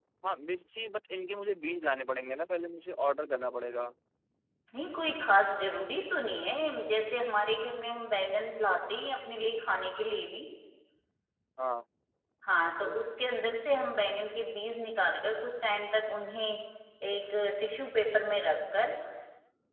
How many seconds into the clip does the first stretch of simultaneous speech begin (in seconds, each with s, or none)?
none